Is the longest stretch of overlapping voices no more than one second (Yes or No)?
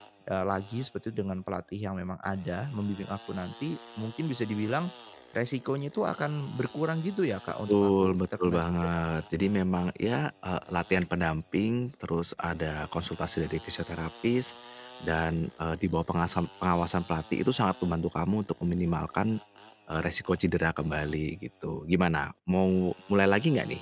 No